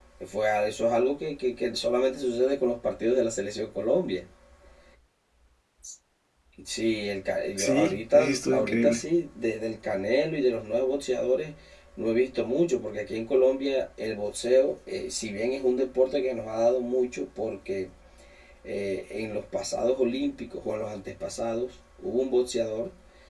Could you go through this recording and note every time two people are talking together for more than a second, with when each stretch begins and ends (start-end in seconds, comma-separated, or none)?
7.6-9.0